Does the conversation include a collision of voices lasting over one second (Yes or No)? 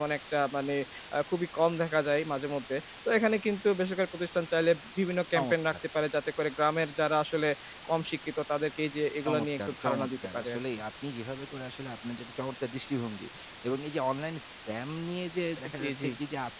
Yes